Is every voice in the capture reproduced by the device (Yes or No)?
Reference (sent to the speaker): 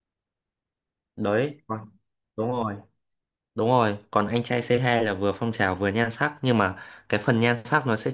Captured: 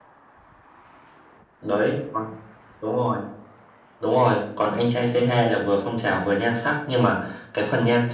Yes